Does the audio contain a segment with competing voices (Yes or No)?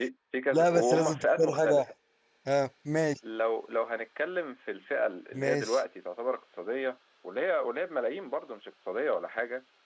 Yes